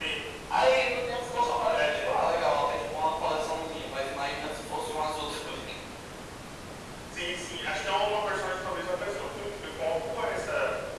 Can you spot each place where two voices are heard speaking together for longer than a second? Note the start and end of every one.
none

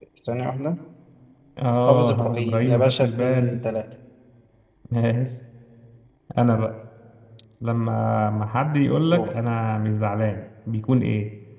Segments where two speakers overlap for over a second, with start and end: 1.9-3.6

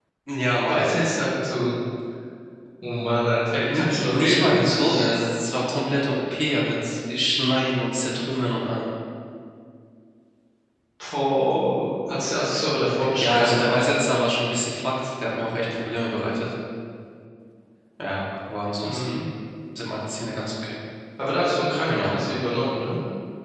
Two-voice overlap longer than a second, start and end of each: 3.5-5.1

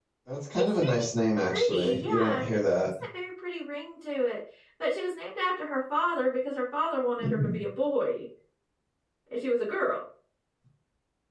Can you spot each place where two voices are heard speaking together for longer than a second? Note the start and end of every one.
1.5-2.7

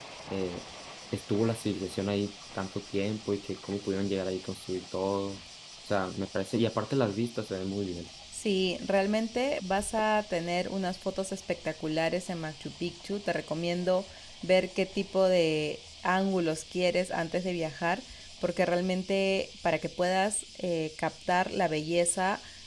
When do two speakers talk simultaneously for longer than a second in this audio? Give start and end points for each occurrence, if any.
none

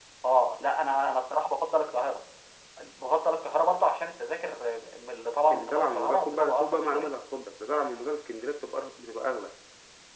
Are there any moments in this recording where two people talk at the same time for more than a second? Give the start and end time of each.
5.5-7.1

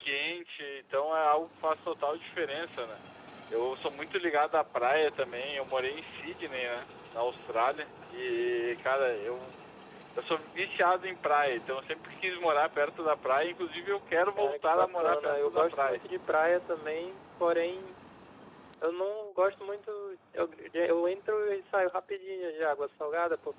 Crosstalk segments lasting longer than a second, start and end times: 14.4-16.0

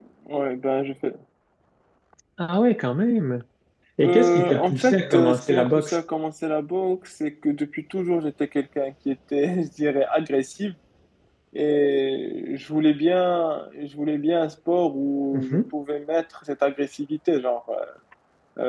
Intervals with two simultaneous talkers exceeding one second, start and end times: 4.0-6.0

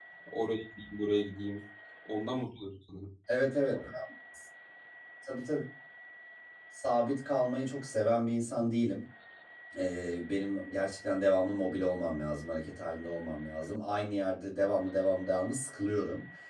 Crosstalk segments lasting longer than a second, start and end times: none

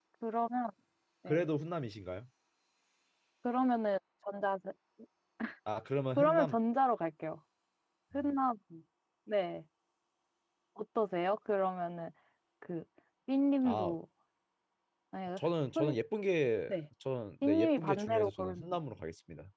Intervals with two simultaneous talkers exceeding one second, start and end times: 17.4-18.6

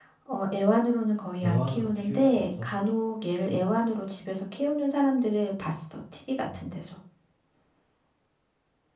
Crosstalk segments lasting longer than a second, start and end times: 1.4-2.7

